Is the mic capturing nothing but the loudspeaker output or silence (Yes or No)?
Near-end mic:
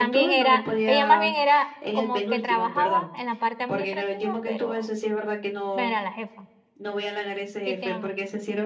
No